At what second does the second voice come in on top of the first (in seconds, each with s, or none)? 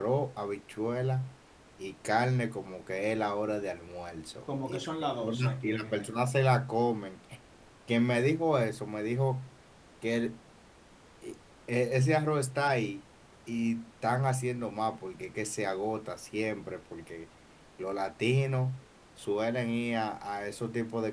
4.5 s